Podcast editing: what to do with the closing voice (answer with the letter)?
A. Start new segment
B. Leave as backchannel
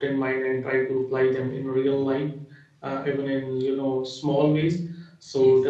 B